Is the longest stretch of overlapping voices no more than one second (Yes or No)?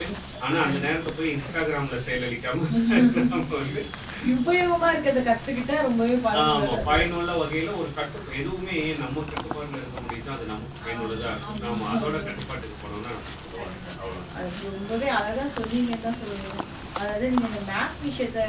No